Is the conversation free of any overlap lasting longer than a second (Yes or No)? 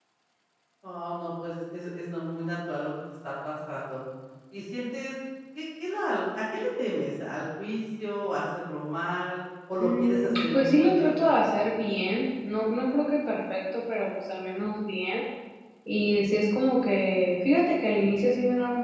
No